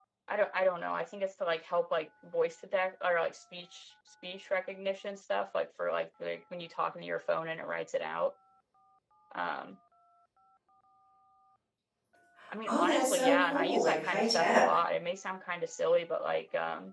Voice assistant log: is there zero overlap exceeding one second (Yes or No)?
No